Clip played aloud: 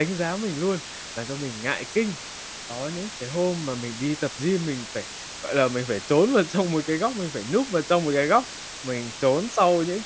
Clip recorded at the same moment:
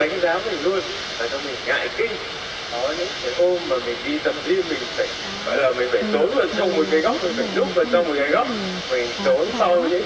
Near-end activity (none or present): present